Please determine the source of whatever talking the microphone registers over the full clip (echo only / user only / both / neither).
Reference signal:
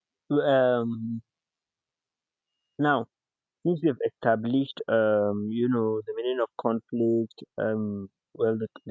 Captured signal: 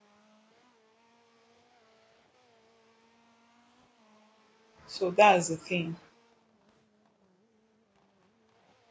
user only